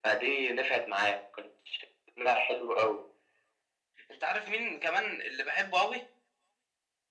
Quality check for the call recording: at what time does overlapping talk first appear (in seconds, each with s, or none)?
none